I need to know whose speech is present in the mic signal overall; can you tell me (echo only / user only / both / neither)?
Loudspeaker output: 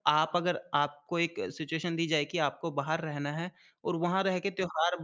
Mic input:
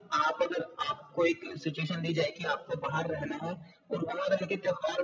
echo only